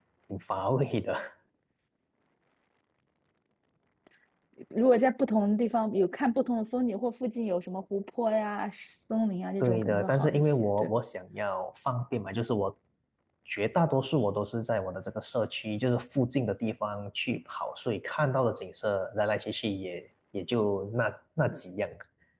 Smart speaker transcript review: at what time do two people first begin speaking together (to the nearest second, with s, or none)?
10 s